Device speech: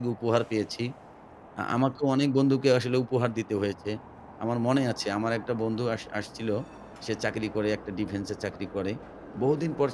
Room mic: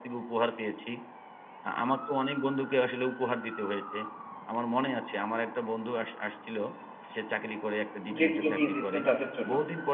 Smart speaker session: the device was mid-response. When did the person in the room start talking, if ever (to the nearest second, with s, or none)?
8 s